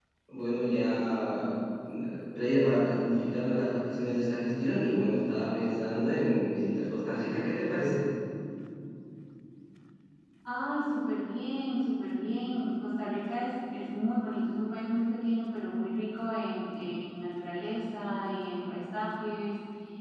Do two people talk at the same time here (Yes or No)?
No